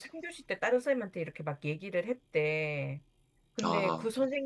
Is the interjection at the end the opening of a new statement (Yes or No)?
No